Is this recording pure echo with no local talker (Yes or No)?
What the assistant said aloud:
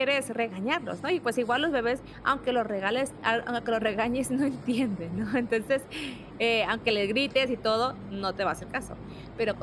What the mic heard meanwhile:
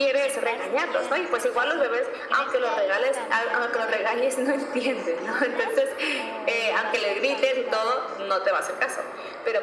No